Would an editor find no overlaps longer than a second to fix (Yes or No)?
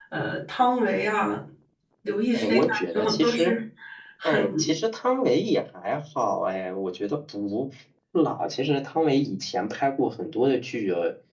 No